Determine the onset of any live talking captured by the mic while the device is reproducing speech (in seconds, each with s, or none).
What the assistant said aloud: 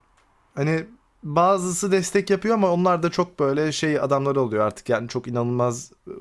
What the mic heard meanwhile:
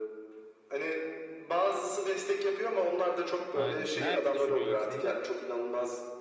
3.5 s